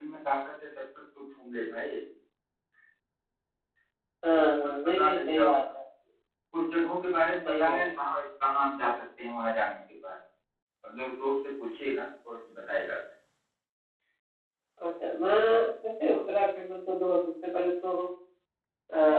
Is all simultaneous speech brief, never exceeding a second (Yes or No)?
No